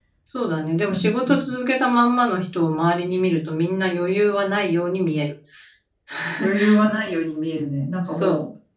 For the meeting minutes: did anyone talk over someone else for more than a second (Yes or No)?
No